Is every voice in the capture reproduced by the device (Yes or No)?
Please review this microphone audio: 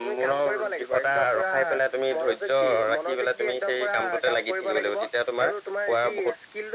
Yes